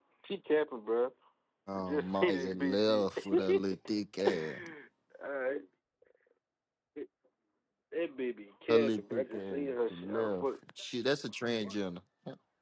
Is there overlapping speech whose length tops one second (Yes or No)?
Yes